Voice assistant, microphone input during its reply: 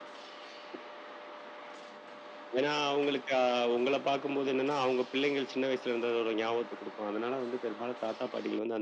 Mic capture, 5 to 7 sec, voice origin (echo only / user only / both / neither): echo only